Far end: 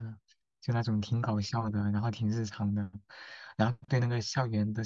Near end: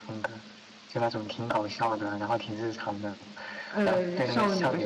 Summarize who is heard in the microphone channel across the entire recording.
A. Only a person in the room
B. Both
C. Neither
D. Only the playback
B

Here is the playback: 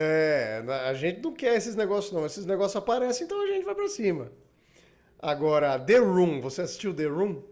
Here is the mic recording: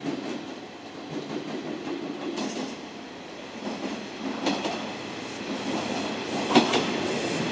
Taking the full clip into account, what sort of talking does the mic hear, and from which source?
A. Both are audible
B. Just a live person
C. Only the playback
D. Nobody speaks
D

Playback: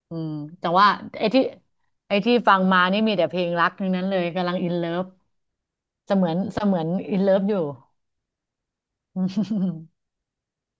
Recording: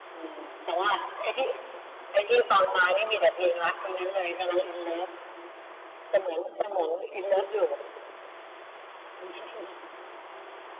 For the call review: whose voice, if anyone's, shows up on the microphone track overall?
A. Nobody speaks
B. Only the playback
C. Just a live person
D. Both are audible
B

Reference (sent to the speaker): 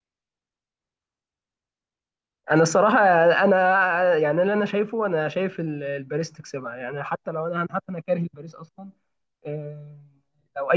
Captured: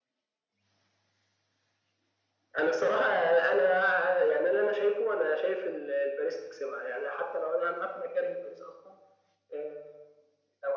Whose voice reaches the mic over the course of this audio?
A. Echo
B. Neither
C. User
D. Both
A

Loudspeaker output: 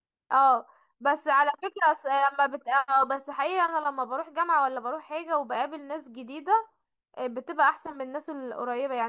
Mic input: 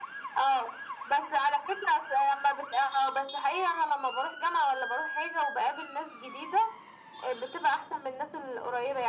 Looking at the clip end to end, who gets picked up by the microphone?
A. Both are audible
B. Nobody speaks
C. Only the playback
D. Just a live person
C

